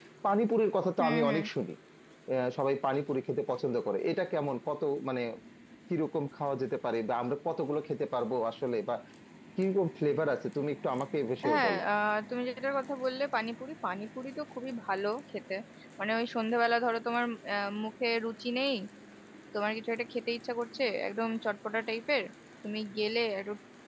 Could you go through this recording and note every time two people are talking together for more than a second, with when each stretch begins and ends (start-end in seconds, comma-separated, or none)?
none